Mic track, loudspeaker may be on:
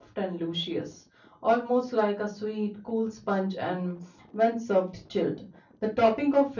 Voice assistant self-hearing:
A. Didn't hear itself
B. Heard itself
A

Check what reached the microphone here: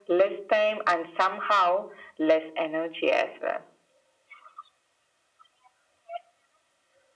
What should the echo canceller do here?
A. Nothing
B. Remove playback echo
B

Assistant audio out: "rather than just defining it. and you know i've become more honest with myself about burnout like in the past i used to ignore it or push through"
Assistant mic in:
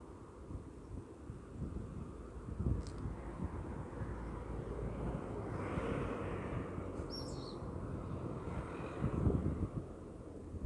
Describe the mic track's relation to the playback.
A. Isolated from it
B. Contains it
A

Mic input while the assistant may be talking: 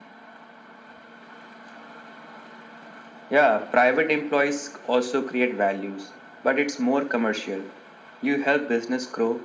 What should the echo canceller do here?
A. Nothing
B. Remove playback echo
B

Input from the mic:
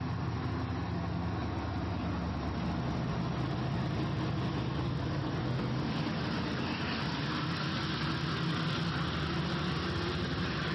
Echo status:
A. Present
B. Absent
B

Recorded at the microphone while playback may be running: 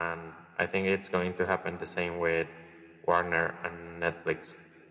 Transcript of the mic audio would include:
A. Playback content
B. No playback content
A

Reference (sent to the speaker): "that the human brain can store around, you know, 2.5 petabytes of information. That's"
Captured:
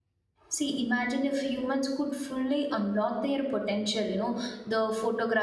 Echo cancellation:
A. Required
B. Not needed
B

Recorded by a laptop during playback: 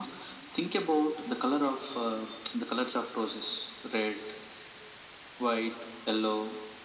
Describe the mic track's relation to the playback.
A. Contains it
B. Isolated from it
A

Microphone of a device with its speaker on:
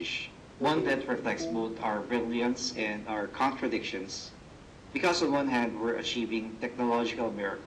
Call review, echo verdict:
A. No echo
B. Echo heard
B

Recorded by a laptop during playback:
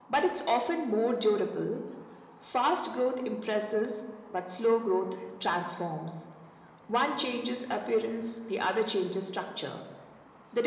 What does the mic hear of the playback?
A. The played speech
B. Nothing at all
A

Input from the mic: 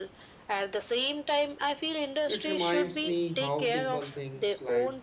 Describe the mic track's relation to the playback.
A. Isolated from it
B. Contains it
B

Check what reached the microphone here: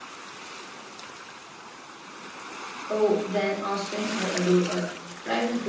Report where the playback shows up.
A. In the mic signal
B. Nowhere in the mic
B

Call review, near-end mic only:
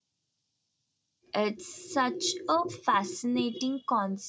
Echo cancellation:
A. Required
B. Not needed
B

